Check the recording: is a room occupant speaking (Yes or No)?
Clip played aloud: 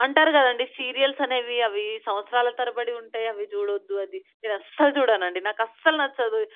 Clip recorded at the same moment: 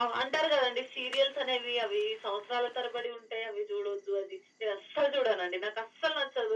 No